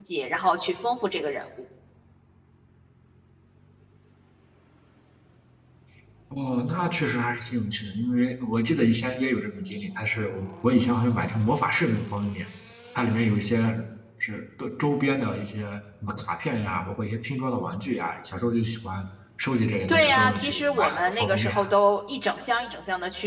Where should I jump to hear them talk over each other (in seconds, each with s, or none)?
19.9 s